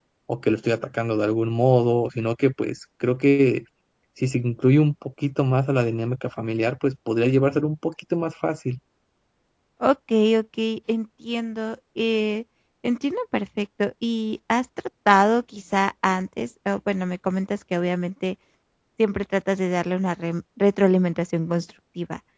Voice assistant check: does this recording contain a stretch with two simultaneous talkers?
No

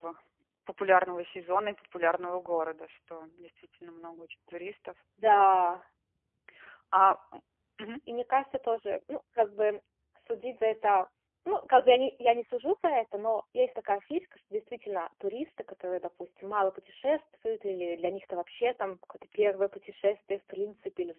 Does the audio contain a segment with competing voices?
No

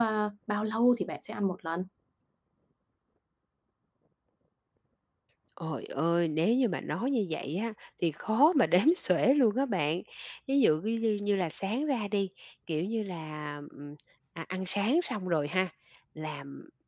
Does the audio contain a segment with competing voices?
No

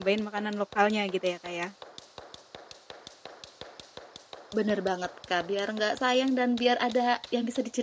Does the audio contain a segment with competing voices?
No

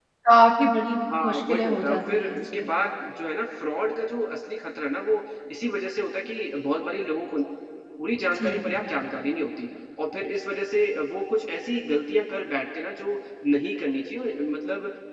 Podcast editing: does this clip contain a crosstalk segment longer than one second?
Yes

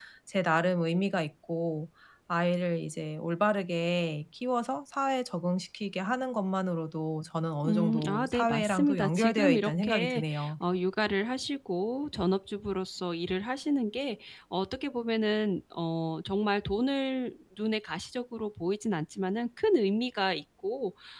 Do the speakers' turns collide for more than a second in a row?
Yes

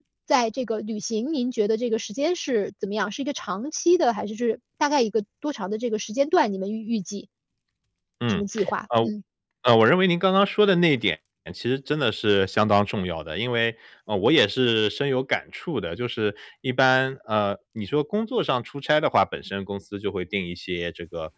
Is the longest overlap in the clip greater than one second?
No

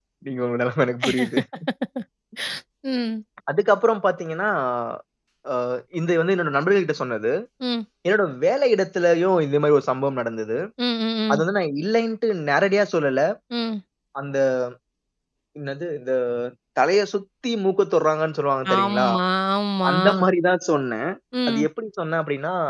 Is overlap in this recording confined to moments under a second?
Yes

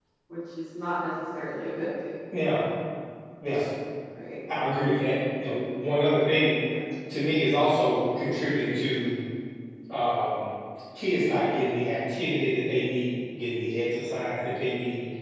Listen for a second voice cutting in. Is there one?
No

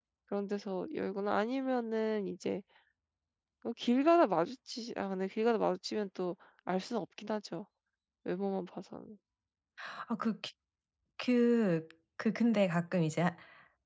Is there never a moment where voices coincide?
Yes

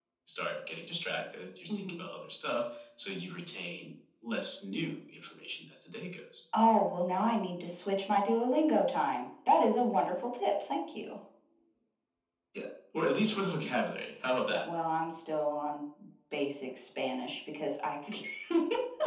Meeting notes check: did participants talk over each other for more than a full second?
No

